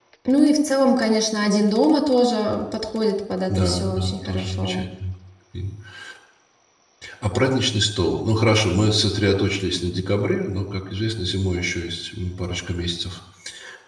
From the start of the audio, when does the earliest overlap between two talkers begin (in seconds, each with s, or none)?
3.5 s